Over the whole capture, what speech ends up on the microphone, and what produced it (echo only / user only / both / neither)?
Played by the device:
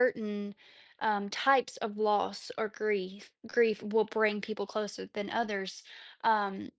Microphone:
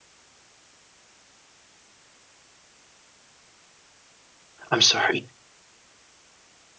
user only